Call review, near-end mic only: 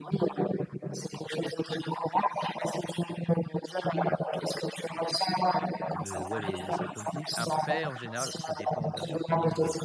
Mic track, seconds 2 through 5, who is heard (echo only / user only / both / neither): echo only